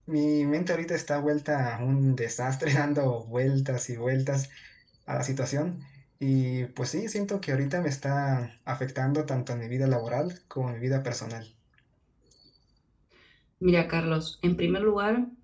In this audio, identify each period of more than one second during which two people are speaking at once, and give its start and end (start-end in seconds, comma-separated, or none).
none